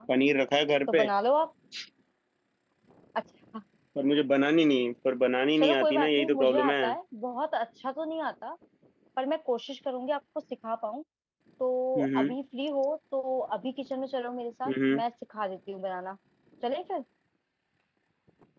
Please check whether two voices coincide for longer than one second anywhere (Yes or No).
Yes